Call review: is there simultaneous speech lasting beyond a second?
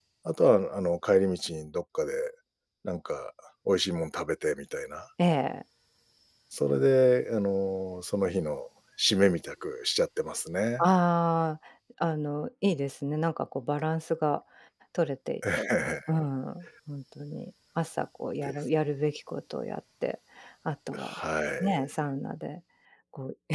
No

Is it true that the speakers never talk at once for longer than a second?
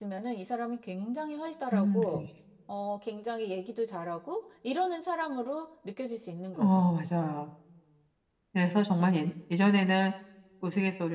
Yes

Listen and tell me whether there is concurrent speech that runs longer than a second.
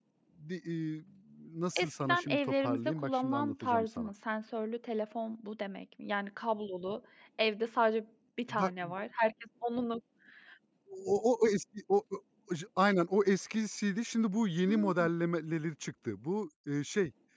Yes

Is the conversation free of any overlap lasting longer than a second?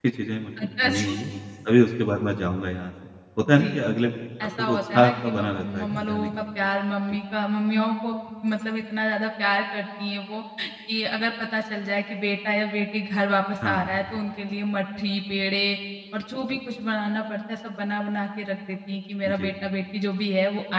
No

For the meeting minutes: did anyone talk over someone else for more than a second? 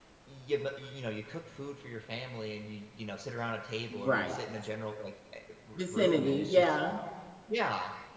Yes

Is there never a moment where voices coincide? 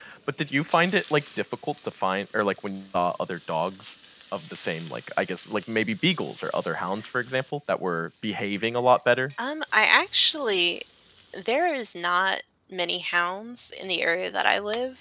Yes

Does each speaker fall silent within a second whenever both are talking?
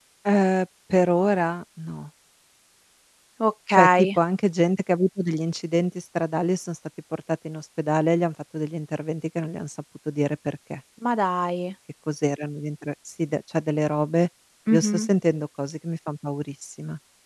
Yes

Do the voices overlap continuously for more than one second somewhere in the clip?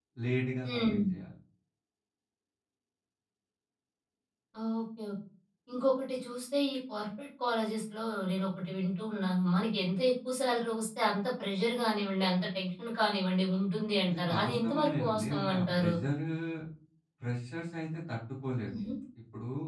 Yes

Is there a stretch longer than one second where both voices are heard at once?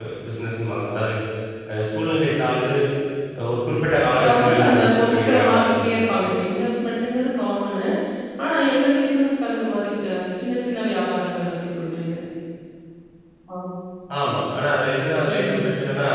Yes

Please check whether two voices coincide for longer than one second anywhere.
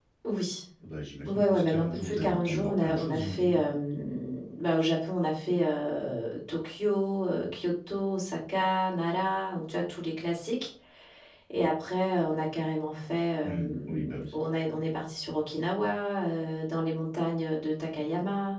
Yes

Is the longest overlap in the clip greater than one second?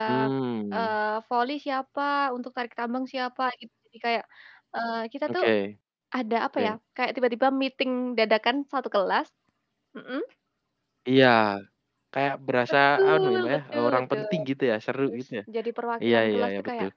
Yes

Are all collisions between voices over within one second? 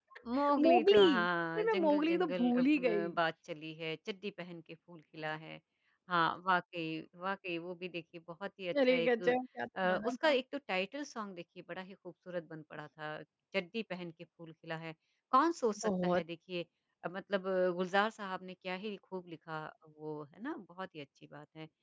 No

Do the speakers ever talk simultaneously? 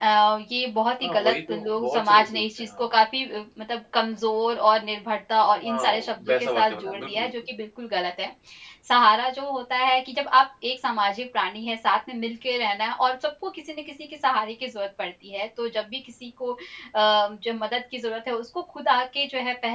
Yes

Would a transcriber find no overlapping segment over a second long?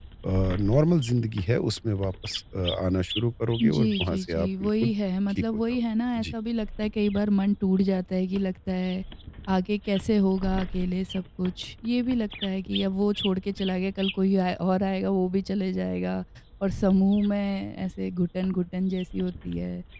No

